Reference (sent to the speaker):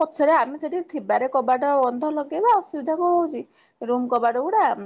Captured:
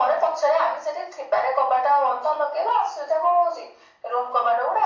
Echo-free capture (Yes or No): No